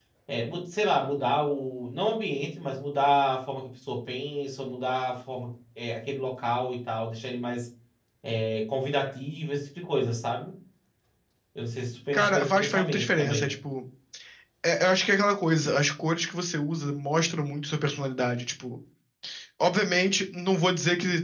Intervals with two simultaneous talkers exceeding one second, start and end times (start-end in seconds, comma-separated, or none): 12.1-13.6